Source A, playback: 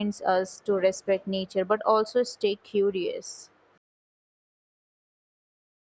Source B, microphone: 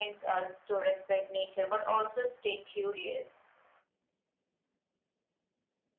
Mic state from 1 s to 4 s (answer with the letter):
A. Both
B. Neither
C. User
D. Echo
D